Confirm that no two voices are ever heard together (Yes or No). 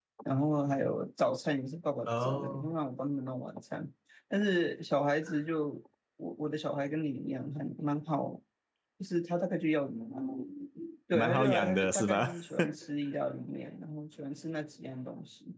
No